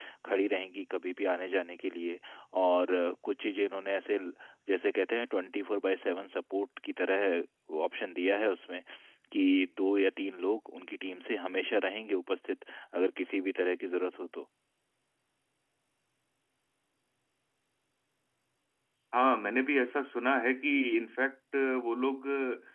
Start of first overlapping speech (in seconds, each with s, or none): none